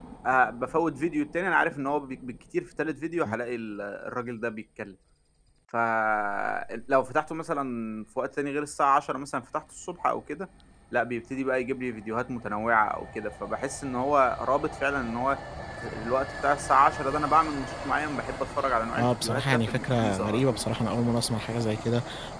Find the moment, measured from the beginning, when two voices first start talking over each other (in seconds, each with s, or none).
18.9 s